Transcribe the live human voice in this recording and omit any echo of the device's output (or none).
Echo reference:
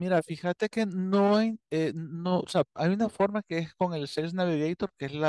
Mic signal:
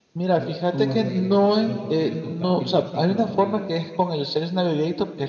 ¿Cómo, cómo les va a llegar esa información? Porque yo compartí un artículo conmigo mismo.